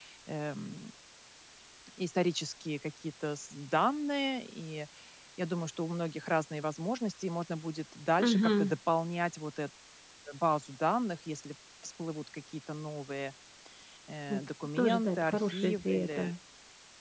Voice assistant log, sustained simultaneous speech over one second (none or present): present